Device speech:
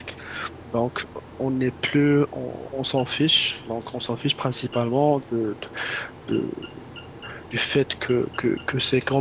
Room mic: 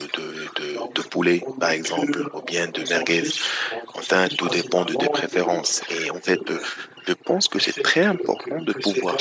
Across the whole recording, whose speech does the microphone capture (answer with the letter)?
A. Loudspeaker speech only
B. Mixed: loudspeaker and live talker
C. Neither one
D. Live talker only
B